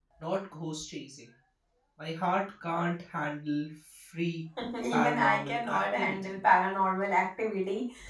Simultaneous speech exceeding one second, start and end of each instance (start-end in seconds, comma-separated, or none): 4.9-6.3